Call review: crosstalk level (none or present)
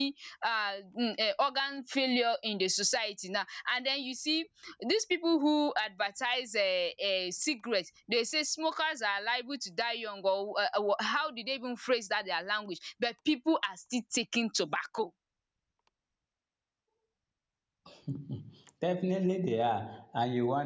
none